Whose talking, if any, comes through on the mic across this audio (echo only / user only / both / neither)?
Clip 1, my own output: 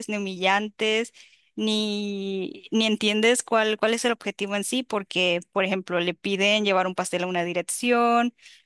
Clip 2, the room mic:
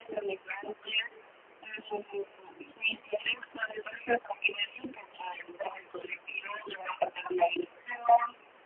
echo only